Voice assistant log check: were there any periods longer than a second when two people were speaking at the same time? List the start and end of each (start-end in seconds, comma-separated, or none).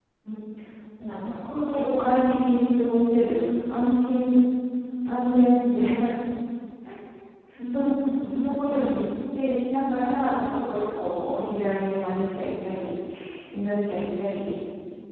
7.7-8.9